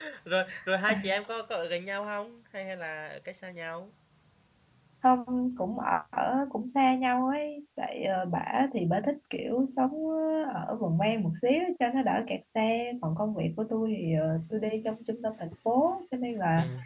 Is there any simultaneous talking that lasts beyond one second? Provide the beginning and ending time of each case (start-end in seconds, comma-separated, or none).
none